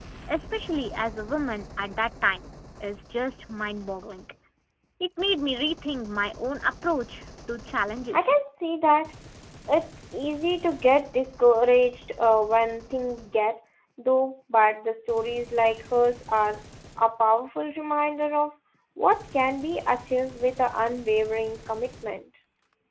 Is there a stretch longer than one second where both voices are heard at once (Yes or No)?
No